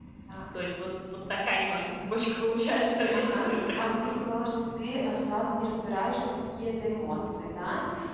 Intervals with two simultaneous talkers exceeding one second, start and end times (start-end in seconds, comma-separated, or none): 2.7-4.1